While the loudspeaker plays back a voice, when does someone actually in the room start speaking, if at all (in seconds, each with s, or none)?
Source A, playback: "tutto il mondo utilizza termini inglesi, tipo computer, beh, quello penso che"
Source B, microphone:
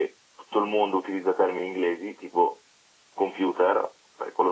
none